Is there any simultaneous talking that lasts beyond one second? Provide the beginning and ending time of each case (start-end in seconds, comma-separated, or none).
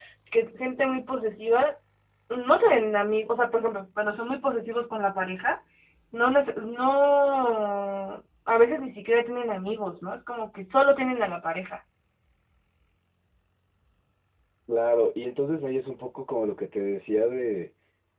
none